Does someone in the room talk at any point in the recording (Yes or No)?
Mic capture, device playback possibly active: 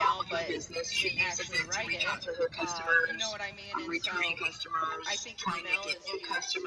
Yes